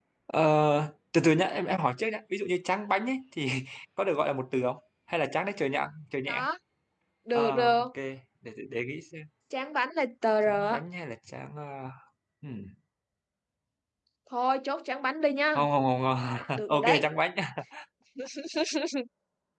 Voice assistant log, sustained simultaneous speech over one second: none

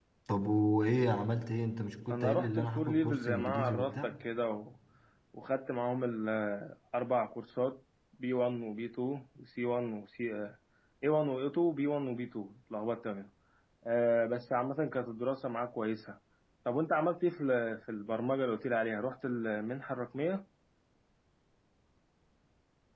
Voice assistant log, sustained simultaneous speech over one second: present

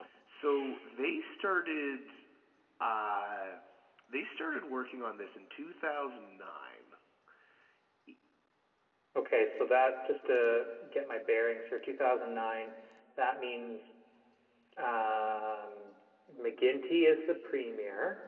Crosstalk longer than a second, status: none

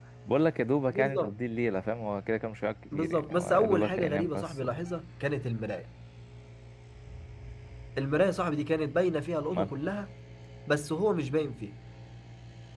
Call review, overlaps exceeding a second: present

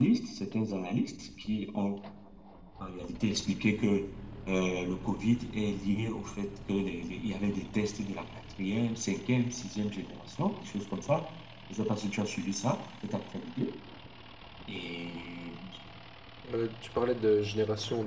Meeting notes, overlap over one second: none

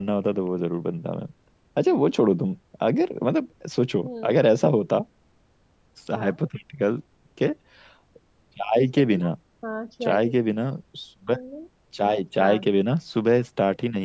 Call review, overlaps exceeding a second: none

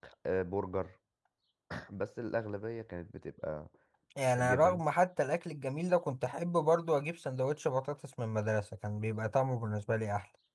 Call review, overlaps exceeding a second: none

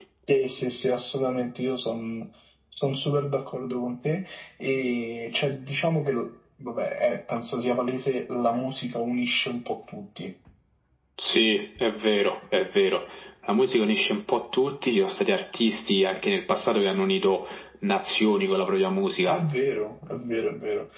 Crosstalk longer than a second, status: none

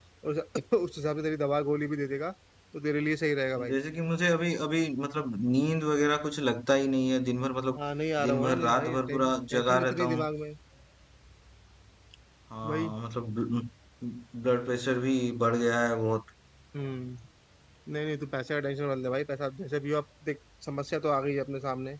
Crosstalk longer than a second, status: present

